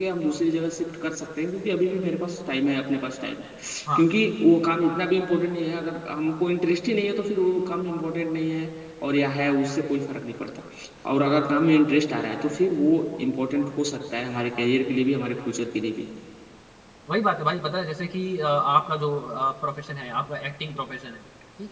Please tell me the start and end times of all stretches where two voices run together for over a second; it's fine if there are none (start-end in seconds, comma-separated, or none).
none